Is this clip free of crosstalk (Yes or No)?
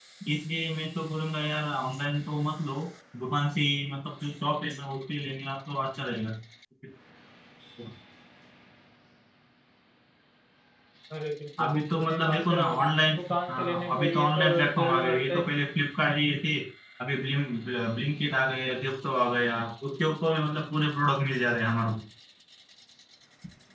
No